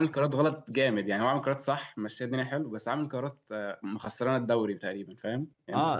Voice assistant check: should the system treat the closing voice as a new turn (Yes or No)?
Yes